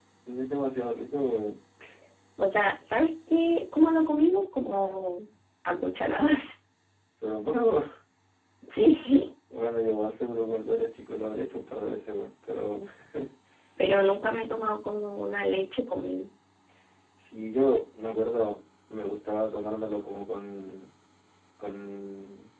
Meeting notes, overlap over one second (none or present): none